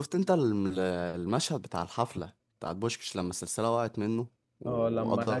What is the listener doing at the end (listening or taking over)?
taking over